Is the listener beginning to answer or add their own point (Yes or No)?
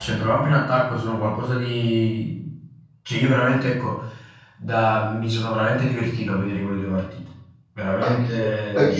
Yes